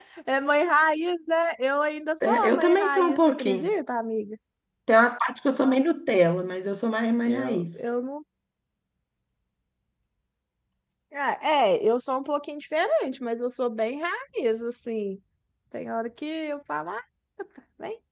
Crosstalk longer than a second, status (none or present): present